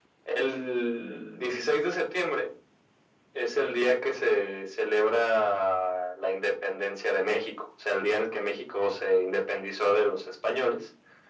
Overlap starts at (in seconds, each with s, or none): none